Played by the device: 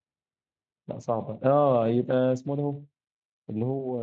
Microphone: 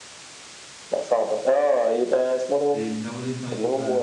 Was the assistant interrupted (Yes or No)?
Yes